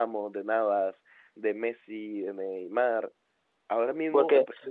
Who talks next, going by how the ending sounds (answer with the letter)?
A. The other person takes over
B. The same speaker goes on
B